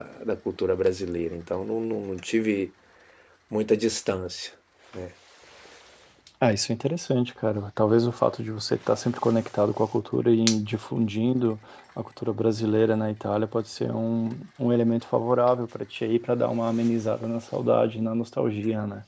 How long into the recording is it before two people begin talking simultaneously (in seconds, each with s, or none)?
none